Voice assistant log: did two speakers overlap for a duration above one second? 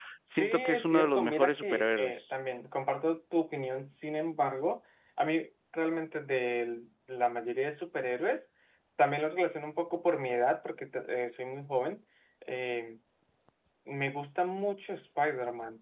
Yes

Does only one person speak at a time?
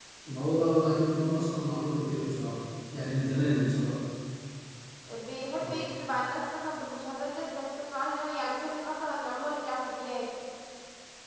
Yes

